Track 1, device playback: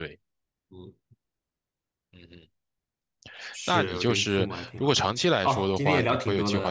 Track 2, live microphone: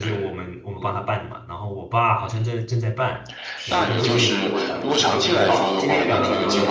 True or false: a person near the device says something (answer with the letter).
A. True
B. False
A